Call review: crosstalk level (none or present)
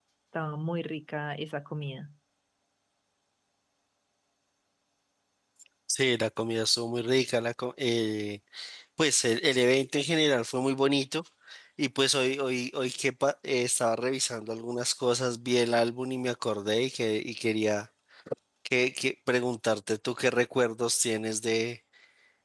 none